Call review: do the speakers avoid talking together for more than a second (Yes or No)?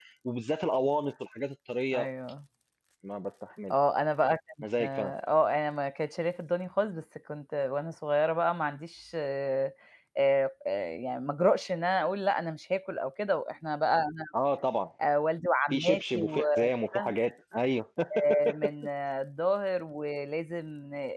No